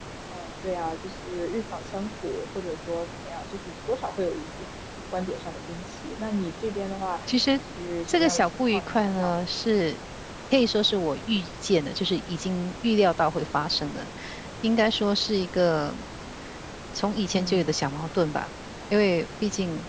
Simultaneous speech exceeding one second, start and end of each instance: 8.1-9.3

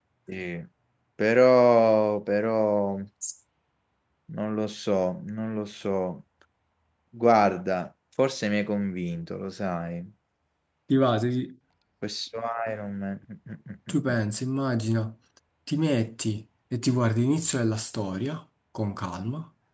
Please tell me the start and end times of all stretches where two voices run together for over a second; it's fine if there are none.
none

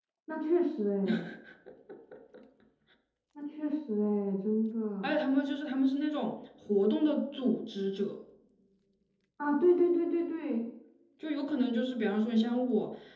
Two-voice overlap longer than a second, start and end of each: none

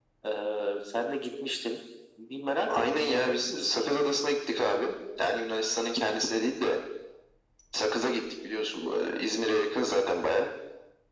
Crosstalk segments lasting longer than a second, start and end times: 2.7-4.0

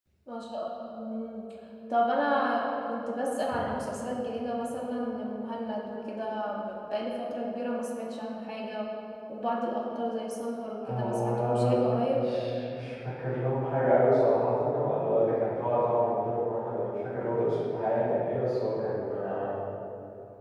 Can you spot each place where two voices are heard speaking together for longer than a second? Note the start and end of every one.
10.9-12.3

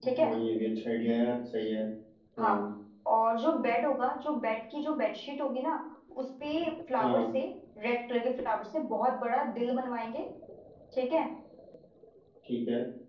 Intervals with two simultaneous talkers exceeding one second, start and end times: none

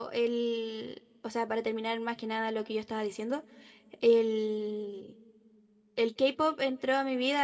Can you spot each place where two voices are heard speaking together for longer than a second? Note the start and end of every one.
none

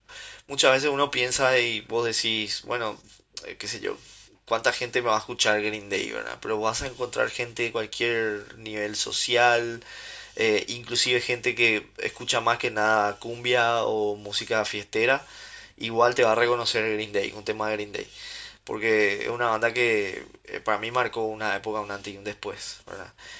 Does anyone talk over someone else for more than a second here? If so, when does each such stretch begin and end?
none

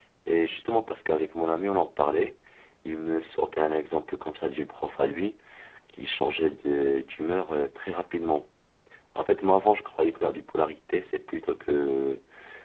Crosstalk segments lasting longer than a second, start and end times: none

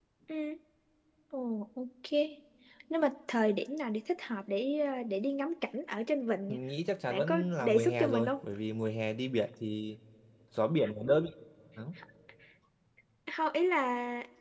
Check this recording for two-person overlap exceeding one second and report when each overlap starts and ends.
7.1-8.3

